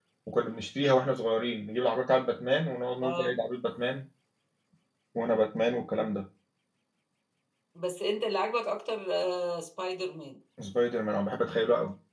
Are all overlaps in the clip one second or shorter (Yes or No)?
Yes